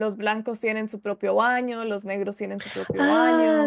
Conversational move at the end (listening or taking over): taking over